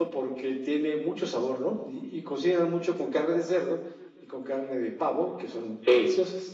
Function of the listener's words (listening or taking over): taking over